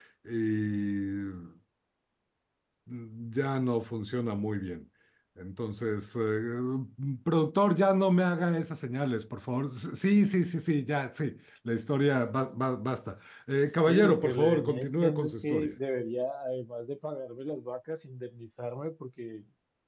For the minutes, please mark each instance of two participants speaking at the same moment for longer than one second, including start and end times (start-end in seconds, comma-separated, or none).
13.9-15.7